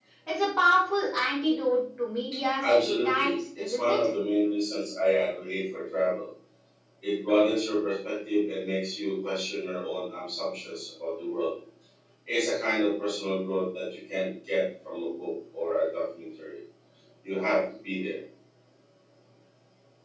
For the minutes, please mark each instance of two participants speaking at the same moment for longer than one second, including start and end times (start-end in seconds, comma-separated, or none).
2.6-4.1